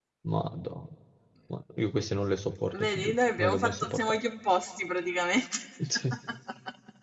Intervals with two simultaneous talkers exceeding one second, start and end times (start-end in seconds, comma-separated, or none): 2.8-4.1